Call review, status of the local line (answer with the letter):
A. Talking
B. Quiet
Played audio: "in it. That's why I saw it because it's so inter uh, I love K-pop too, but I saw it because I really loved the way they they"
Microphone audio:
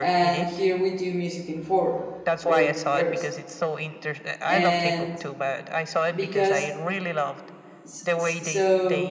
A